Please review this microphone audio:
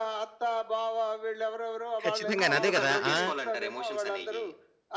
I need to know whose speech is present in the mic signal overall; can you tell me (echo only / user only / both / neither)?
both